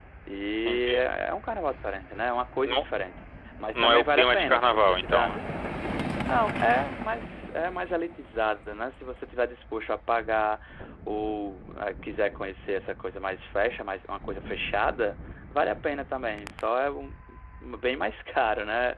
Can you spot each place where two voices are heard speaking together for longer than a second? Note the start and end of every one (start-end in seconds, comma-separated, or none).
3.7-5.4